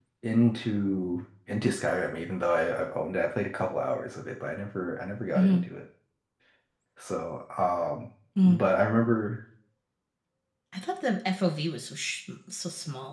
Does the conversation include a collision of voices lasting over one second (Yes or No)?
No